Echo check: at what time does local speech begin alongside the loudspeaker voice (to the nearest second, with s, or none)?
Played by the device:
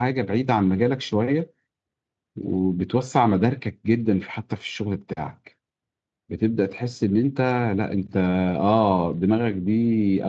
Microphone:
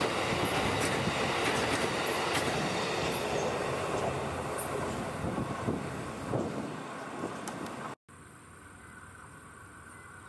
none